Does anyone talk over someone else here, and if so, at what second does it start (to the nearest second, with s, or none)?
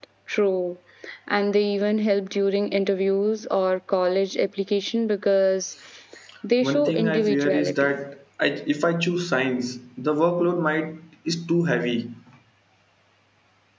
7 s